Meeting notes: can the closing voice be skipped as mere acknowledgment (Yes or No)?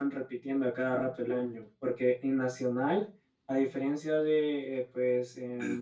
No